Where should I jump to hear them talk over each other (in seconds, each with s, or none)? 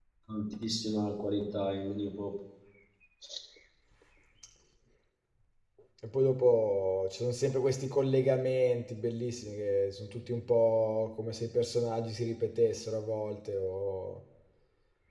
none